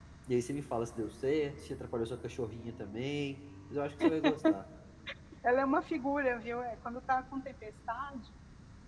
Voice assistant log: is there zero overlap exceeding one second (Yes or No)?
Yes